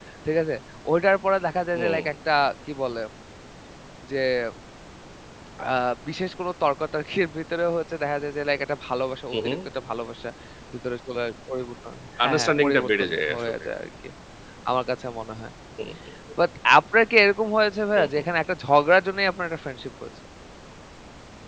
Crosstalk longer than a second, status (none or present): present